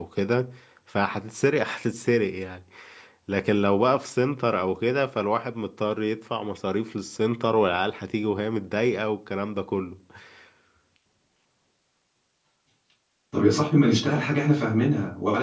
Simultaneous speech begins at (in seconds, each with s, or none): none